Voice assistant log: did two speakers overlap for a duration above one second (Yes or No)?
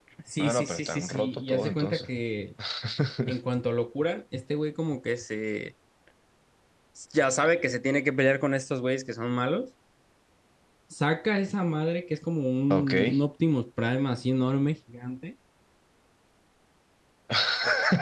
Yes